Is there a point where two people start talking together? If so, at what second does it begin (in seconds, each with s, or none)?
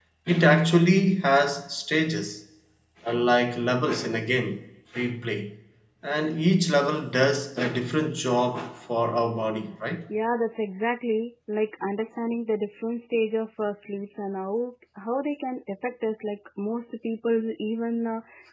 none